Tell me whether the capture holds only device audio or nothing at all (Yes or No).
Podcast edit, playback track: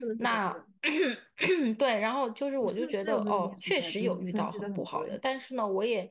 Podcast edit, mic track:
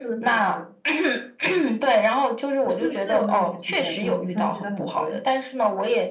Yes